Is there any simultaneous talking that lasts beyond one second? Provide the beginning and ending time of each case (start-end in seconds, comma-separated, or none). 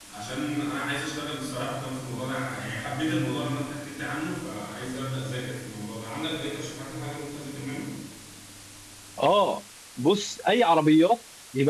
none